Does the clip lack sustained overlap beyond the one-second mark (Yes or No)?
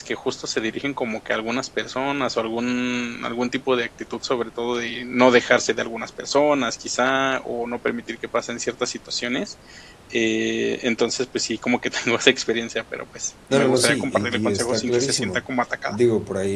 No